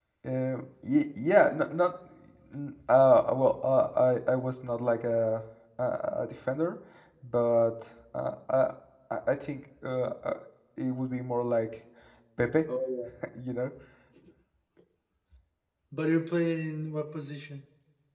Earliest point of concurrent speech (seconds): none

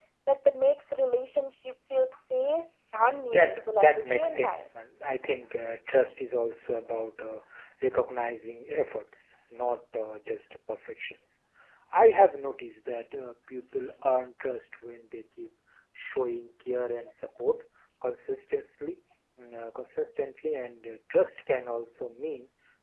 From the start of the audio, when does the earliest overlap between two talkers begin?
3.3 s

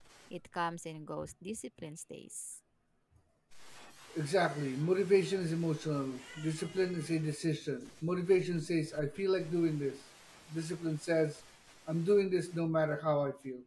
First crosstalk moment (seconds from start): none

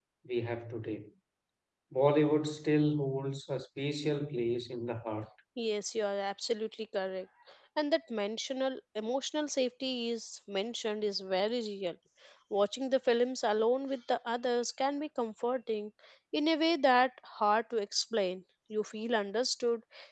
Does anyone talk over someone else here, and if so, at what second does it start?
none

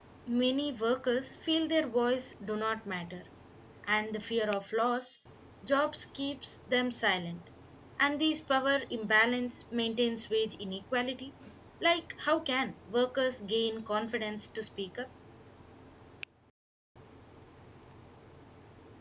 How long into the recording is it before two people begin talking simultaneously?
none

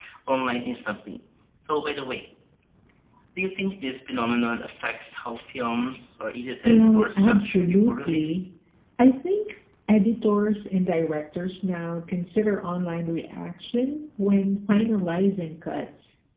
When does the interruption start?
6.6 s

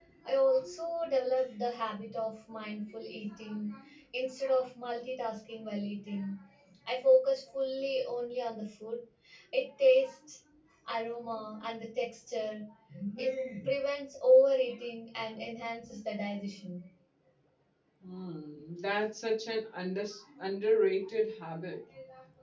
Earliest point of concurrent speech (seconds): none

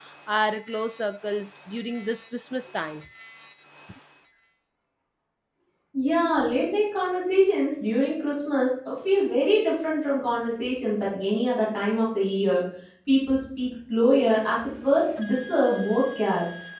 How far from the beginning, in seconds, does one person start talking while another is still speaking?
none

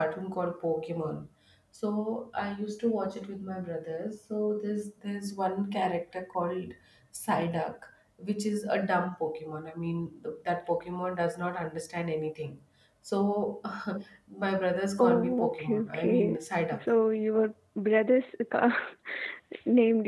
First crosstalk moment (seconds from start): 15.0 s

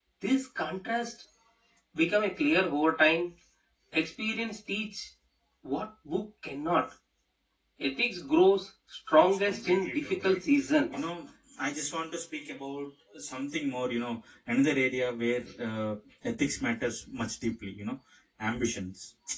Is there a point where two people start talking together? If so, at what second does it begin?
9.2 s

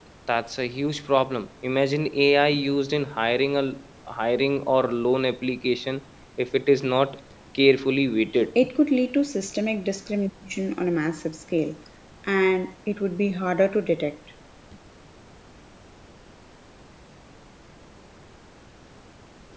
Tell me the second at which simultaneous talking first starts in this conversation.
none

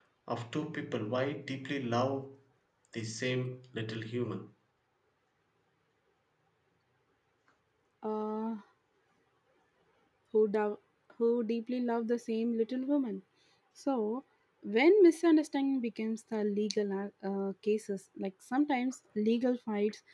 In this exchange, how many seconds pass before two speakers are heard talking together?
none

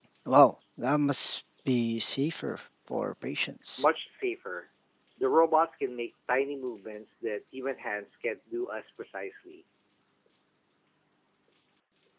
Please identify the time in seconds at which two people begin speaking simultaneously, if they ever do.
none

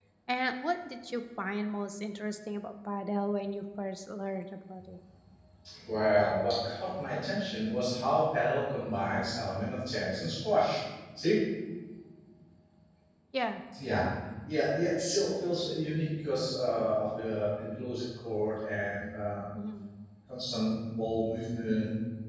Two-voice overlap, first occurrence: none

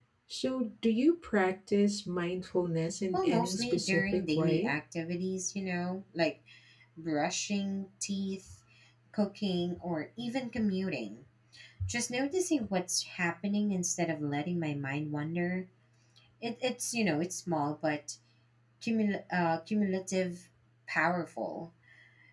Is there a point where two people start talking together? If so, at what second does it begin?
3.1 s

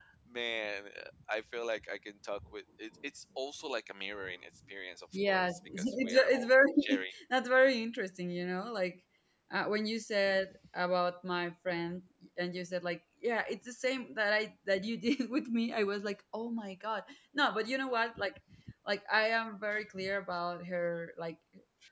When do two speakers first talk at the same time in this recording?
5.1 s

